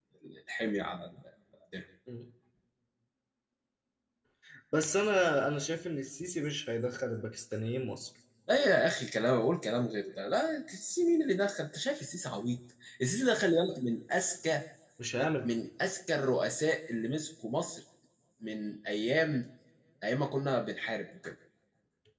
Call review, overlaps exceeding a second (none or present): none